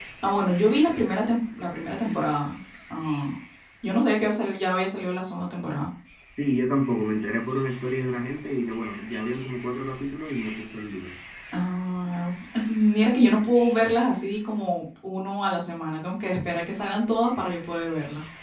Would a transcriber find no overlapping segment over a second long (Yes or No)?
Yes